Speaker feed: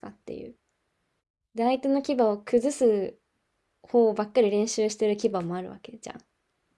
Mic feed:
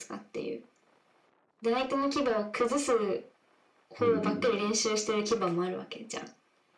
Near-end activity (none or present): present